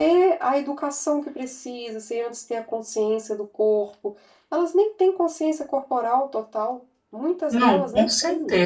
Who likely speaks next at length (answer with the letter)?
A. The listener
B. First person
A